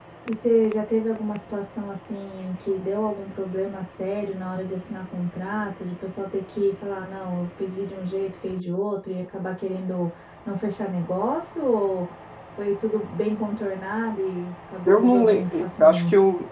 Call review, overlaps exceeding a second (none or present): present